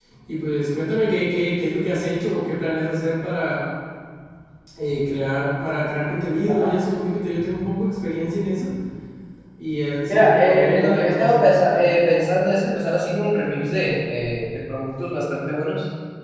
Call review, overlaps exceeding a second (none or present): present